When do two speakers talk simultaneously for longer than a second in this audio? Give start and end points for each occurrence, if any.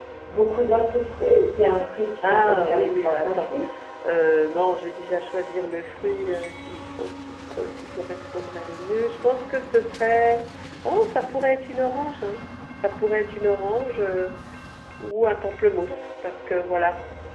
2.2-3.5

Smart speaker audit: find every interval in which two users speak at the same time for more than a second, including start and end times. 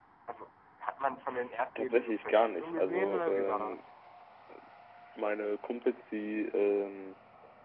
1.8-3.8

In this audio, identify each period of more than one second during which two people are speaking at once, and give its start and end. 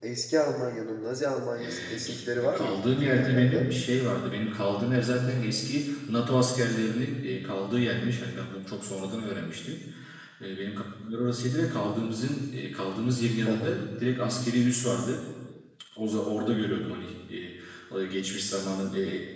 1.6-3.7

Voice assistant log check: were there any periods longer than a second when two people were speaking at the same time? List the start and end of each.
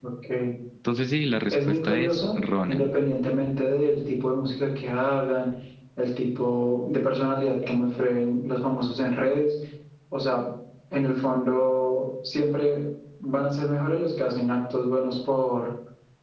1.5-2.9

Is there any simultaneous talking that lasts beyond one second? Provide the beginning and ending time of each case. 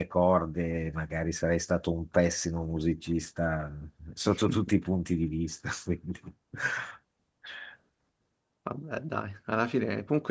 none

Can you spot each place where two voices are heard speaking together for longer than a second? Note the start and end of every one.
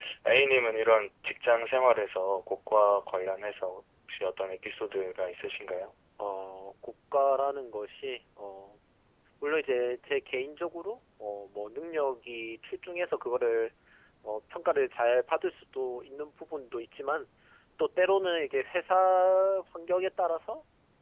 none

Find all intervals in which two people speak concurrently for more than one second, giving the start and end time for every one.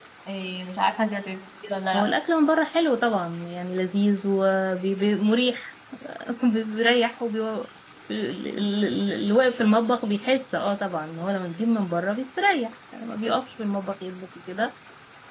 none

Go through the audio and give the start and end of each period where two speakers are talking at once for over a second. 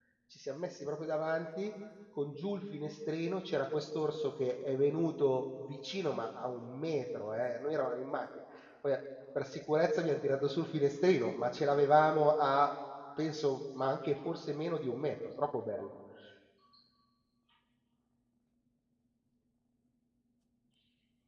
none

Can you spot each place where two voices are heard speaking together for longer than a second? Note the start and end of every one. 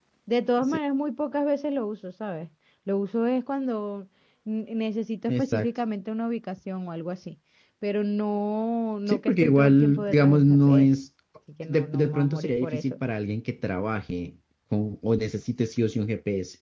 9.1-10.9, 11.6-13.0

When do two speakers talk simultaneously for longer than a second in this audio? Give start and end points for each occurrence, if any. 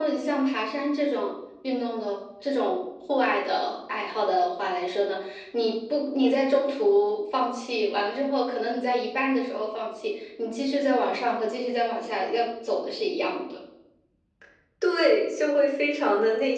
none

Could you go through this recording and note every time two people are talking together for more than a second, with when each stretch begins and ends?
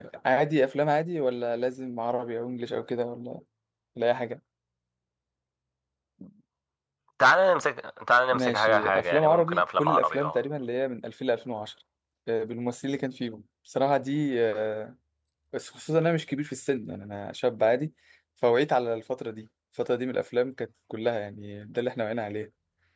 8.3-10.4

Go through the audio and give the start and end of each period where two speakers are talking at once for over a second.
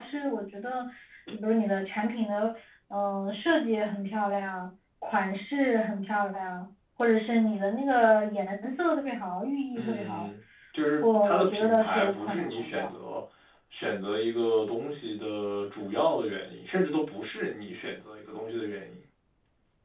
11.0-12.9

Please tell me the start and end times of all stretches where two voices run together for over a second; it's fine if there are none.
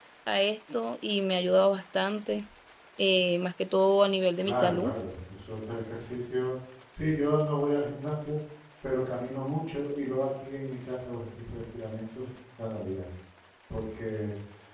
none

